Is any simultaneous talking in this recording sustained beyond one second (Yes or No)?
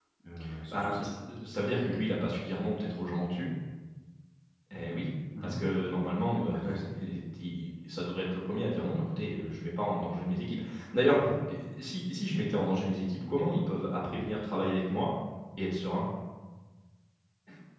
No